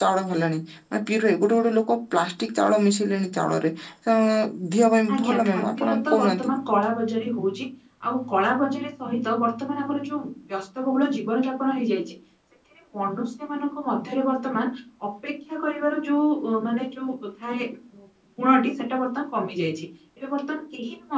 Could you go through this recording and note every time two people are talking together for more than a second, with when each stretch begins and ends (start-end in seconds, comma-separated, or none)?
5.1-6.5